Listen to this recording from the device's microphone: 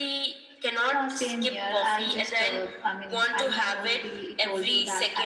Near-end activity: none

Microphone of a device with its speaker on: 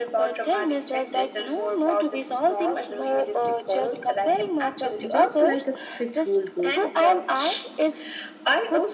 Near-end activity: present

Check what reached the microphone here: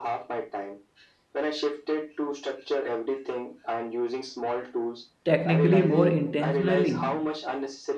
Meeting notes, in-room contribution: present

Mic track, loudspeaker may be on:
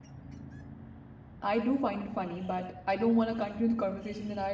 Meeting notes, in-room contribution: present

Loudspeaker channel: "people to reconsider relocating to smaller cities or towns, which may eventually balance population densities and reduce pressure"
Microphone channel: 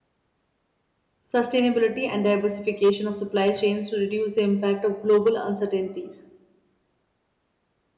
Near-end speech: present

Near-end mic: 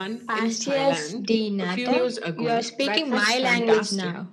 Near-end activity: none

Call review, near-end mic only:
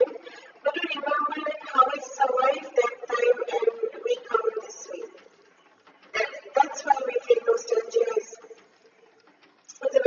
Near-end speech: none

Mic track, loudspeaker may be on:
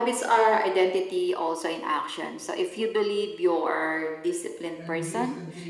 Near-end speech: present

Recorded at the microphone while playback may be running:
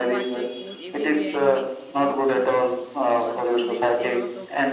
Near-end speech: present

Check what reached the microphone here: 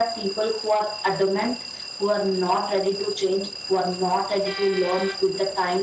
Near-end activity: none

